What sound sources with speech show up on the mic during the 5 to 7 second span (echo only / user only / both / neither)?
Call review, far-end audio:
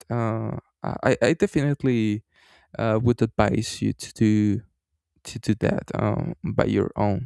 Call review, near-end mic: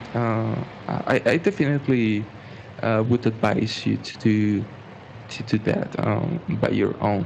echo only